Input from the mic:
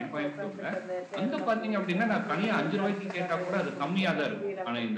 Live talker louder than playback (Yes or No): No